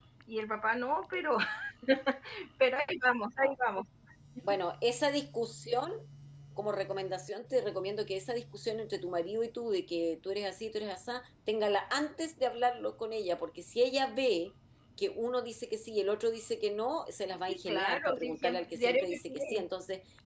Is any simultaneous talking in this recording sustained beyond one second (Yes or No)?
Yes